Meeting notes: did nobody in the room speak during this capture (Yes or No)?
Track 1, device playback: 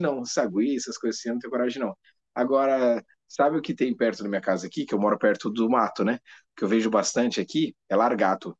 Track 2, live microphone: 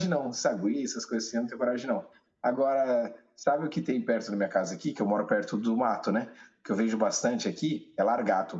Yes